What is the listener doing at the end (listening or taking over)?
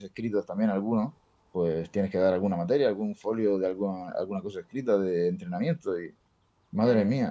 listening